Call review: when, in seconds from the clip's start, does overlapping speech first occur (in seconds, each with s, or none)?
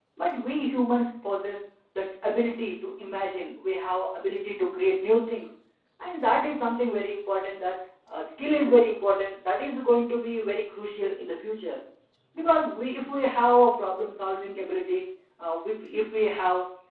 none